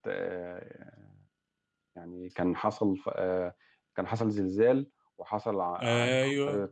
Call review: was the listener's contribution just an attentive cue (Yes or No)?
Yes